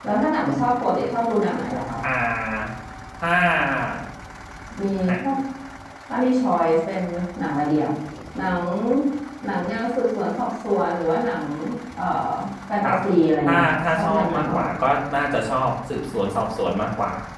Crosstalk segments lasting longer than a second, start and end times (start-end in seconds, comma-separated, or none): 13.4-14.7